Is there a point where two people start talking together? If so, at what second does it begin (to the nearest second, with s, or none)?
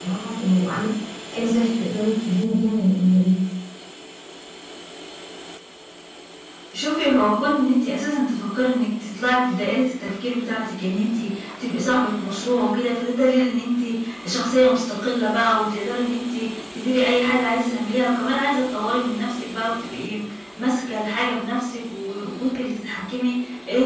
none